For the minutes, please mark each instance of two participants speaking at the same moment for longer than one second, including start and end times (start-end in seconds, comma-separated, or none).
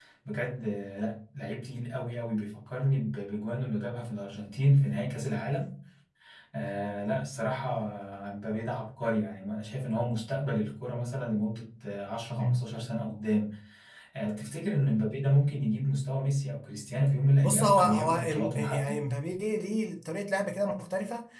17.4-19.0